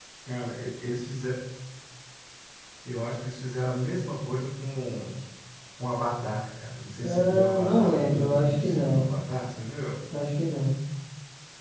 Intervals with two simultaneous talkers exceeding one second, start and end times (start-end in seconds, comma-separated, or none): 7.0-9.0